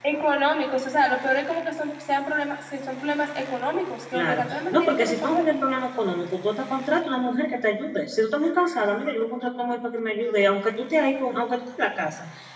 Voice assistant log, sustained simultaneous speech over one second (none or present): present